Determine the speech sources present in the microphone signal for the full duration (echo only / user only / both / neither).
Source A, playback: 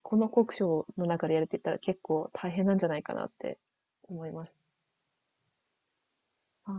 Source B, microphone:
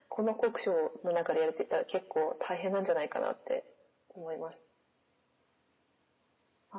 echo only